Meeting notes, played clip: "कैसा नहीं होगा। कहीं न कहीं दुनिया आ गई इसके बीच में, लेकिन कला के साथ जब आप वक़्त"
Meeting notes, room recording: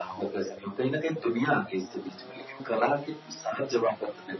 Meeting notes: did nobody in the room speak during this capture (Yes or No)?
Yes